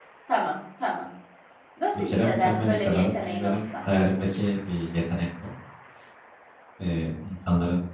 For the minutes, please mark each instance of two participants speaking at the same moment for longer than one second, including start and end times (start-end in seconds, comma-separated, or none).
2.0-3.6